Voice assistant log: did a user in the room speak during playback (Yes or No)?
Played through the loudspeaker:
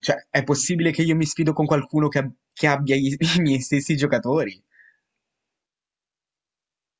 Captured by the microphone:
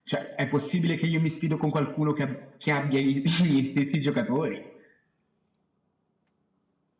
No